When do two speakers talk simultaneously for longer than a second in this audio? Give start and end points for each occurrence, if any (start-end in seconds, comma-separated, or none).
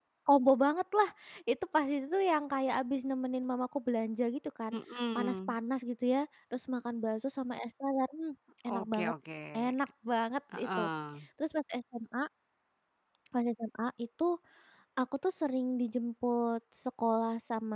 none